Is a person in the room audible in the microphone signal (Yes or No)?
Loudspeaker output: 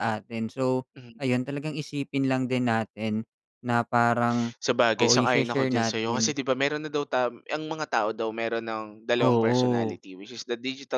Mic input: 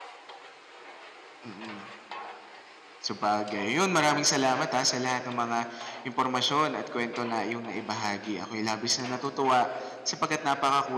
Yes